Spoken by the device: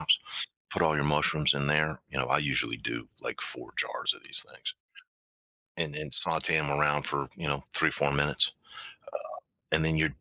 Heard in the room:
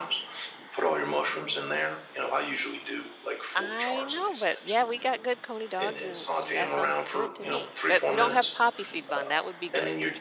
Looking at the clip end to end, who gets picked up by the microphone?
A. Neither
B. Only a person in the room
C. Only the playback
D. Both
D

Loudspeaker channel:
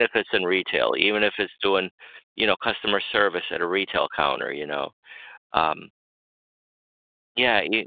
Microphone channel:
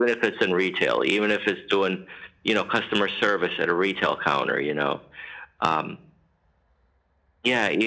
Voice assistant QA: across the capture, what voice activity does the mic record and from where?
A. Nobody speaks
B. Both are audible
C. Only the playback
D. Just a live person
C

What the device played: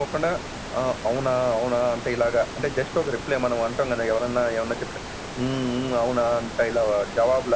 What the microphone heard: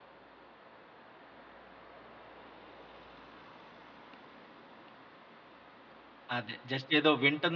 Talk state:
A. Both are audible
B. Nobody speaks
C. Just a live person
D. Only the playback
C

